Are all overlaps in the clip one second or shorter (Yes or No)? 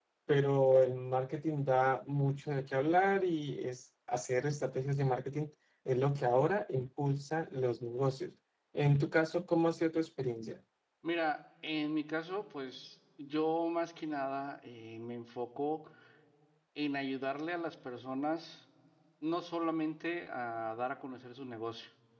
Yes